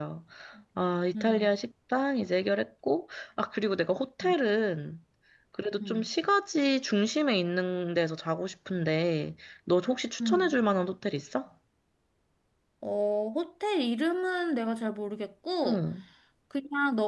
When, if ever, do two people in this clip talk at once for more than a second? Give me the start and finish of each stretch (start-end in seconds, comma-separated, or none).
none